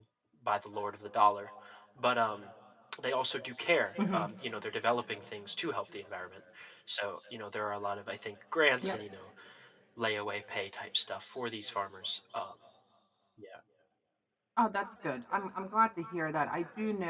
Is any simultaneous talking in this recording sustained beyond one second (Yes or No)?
No